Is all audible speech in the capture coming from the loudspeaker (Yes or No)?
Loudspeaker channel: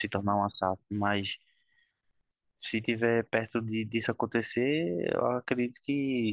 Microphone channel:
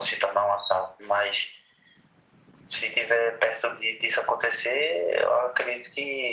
Yes